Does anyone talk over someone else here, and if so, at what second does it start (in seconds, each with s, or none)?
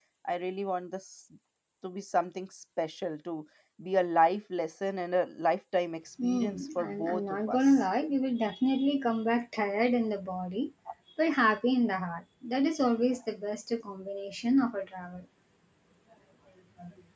6.2 s